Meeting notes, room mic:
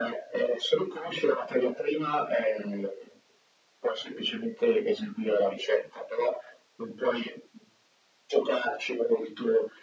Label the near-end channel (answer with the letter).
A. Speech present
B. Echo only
B